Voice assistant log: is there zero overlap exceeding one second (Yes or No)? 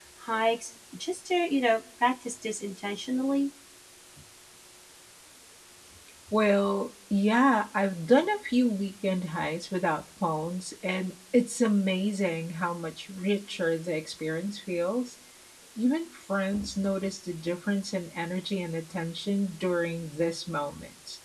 Yes